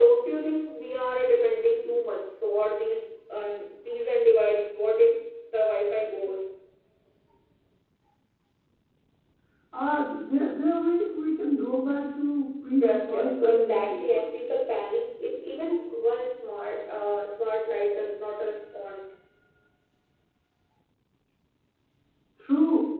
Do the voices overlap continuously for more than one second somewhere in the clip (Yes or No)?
Yes